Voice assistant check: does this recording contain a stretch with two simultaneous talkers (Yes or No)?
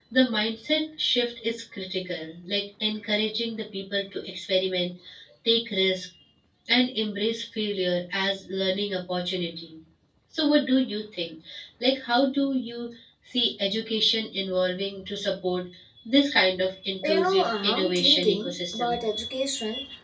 Yes